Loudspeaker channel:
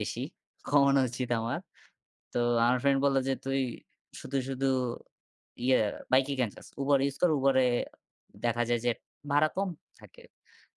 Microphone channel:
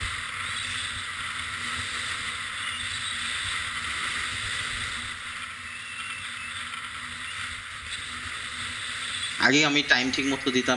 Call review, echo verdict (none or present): none